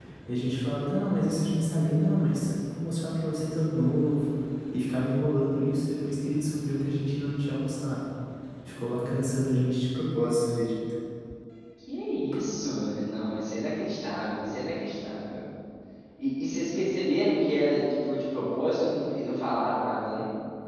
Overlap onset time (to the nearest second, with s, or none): none